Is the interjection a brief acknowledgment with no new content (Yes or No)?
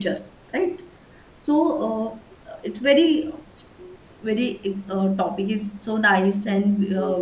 No